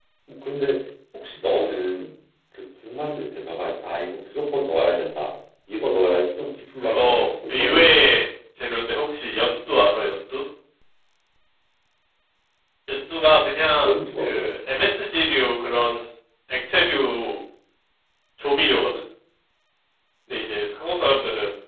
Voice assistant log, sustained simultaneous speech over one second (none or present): present